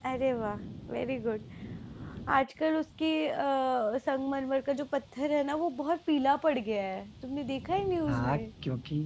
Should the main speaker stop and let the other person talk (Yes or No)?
Yes